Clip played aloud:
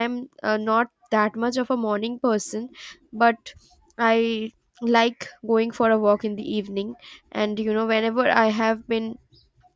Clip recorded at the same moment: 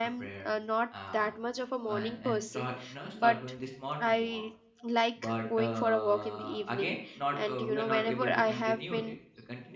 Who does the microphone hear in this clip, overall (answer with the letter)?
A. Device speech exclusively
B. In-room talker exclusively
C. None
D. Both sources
D